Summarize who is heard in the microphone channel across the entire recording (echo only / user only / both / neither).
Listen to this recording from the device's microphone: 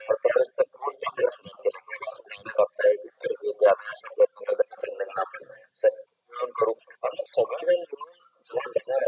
echo only